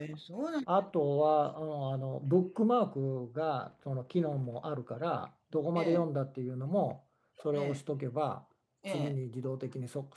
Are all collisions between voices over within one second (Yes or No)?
Yes